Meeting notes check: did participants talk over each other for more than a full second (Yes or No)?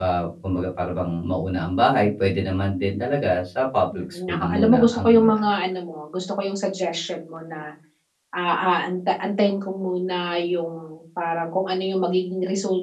Yes